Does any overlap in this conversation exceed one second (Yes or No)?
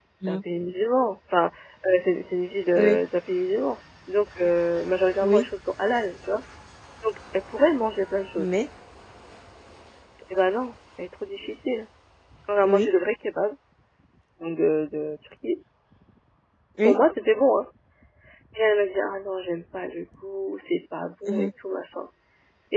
No